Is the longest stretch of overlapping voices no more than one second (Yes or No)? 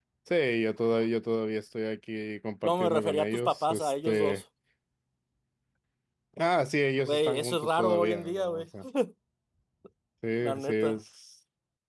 No